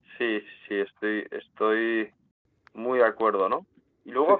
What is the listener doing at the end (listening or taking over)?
listening